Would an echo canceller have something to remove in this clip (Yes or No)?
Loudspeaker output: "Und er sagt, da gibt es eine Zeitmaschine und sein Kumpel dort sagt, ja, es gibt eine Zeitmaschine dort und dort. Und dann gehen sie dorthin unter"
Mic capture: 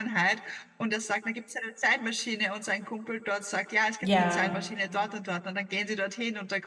Yes